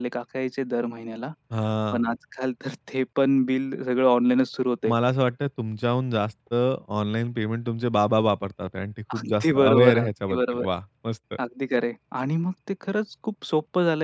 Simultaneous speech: Yes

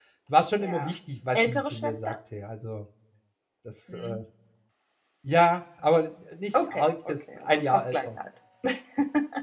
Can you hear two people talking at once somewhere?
Yes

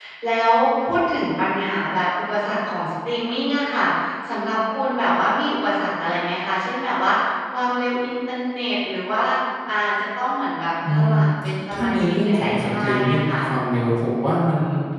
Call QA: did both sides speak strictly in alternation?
No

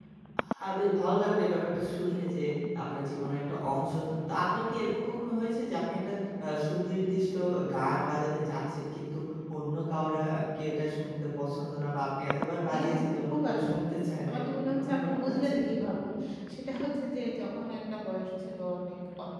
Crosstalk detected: Yes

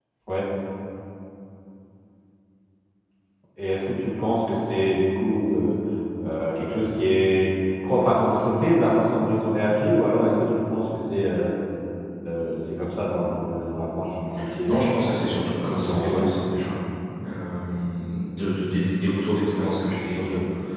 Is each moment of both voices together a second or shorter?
No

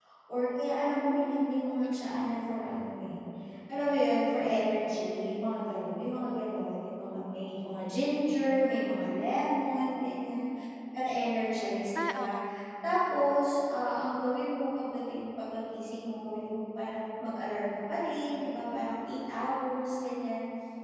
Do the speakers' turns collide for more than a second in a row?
Yes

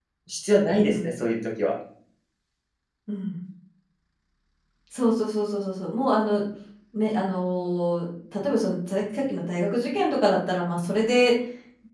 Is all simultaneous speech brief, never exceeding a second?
Yes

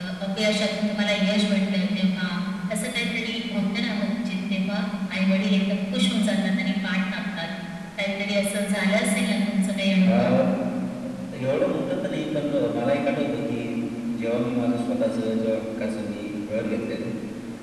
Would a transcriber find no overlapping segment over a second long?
Yes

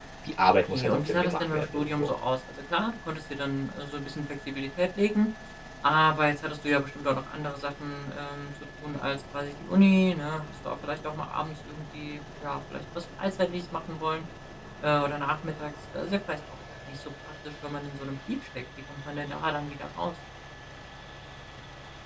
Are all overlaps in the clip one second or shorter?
No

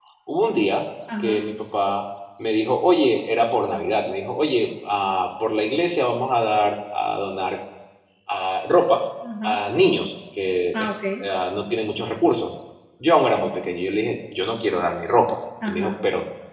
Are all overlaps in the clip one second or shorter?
Yes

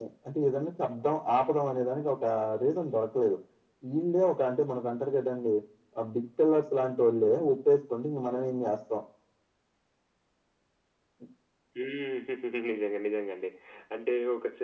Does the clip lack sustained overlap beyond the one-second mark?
Yes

